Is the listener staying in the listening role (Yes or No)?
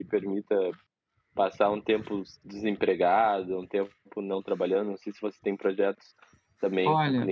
No